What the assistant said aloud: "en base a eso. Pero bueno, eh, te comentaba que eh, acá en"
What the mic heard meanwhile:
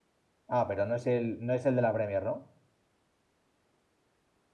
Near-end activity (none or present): present